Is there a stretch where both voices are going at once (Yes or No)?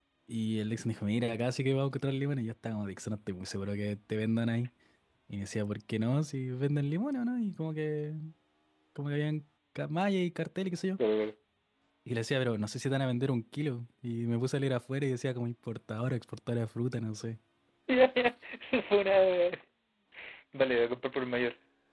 No